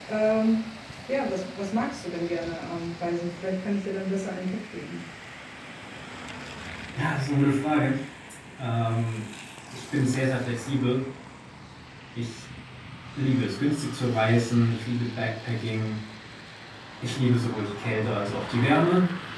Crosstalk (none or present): none